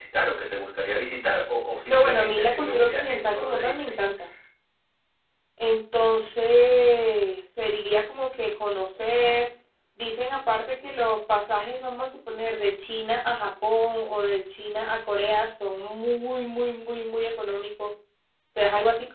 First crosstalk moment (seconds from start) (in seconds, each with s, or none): 1.9 s